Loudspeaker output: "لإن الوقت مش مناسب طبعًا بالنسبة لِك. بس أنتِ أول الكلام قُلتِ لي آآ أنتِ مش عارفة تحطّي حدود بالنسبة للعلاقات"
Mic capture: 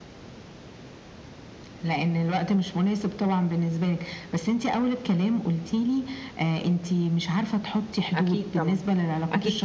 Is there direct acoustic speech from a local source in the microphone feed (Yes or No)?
Yes